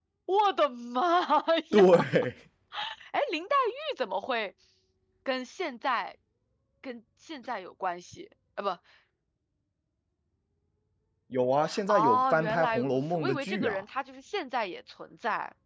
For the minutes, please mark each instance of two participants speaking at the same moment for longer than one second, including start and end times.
11.9-13.8

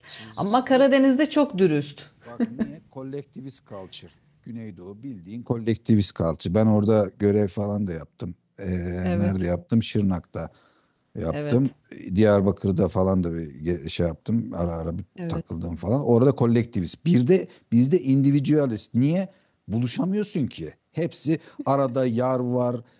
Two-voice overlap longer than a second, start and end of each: none

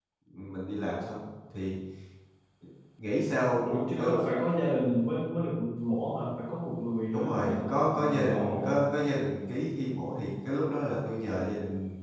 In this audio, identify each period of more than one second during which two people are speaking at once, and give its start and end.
7.1-8.8

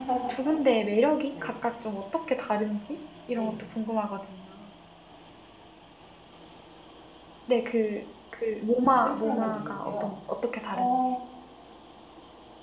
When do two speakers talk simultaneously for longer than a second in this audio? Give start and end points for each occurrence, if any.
8.8-10.1

